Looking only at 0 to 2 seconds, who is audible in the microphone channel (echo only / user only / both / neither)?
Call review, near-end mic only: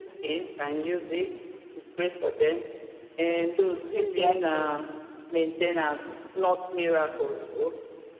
echo only